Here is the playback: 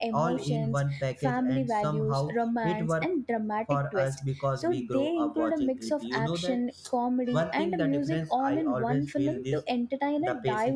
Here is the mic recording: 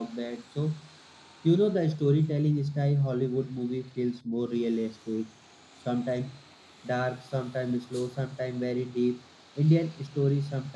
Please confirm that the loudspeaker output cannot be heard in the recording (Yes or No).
Yes